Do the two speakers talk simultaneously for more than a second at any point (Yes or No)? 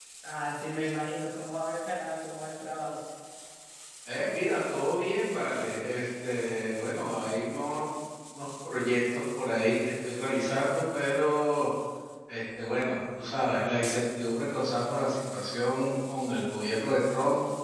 No